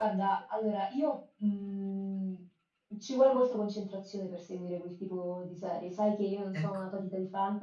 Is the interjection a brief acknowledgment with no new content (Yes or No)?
Yes